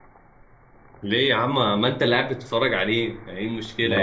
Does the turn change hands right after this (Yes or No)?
Yes